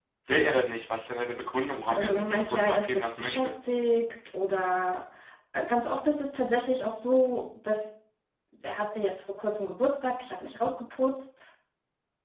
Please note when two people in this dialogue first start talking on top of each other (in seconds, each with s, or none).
1.9 s